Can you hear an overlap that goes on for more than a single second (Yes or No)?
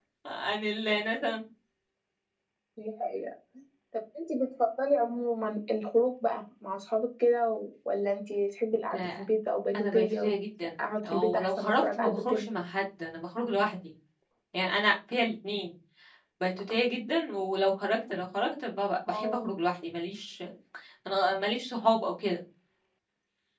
Yes